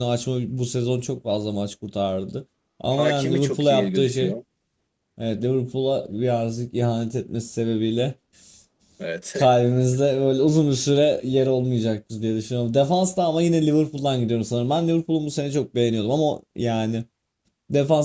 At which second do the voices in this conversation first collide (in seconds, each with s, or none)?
2.9 s